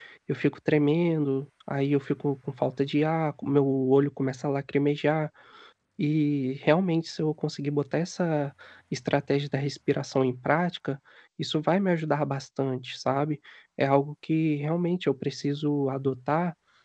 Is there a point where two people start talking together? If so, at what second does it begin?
none

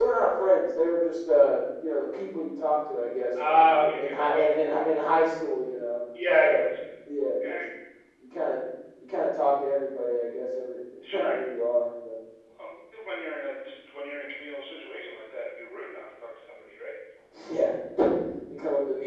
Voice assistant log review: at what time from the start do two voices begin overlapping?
3 s

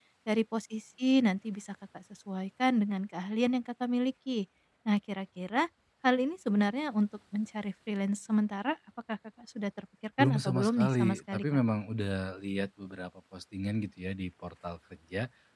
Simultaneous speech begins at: 10 s

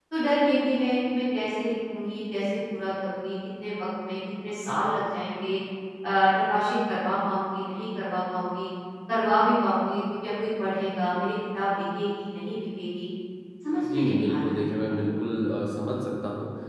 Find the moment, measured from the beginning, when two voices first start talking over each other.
14 s

